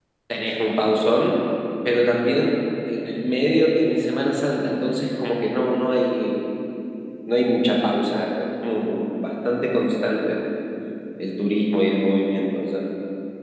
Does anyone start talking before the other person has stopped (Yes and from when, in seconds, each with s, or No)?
No